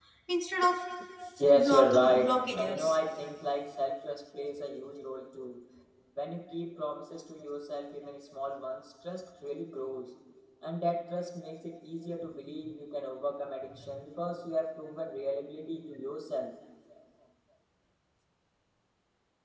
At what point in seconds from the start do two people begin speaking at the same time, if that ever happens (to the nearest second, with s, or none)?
2 s